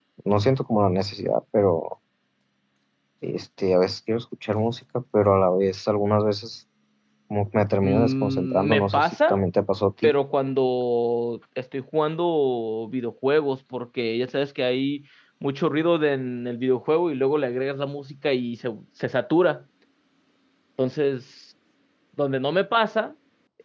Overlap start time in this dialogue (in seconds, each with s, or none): 7.8 s